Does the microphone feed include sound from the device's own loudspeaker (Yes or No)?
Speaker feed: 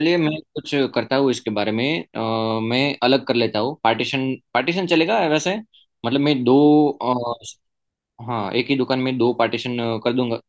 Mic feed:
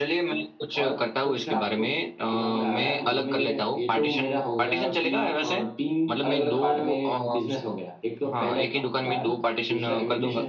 Yes